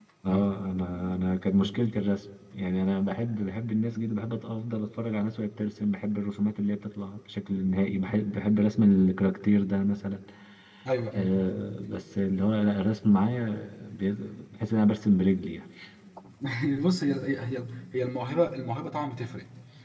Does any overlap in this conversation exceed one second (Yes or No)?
No